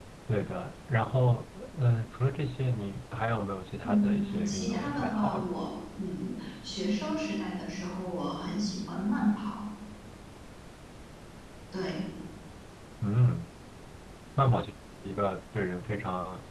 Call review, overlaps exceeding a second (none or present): present